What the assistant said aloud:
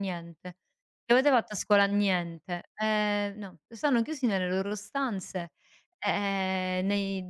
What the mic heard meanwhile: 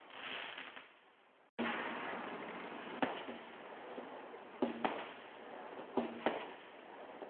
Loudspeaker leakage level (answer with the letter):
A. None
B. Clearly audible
A